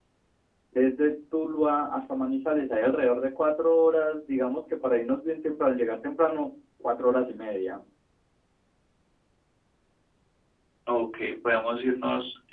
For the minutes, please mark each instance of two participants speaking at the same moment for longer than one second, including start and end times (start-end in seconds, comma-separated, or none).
none